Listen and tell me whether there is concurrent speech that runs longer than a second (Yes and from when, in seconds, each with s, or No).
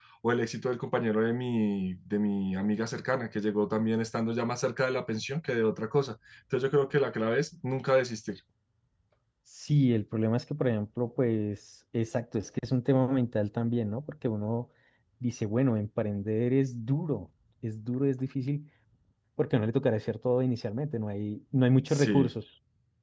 No